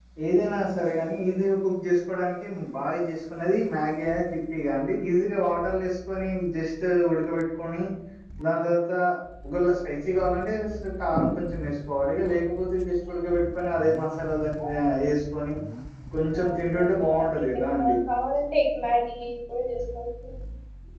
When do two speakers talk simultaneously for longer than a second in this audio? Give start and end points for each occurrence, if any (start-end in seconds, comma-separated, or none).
16.4-18.0